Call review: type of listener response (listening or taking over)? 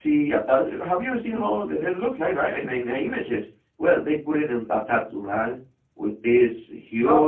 listening